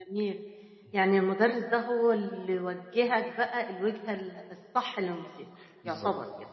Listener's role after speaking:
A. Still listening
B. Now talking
B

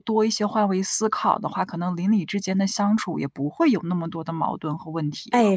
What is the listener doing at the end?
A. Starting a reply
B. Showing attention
A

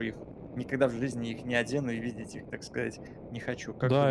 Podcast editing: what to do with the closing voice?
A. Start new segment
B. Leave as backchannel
A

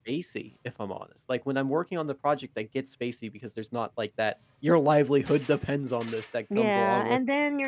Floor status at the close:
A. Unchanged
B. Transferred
B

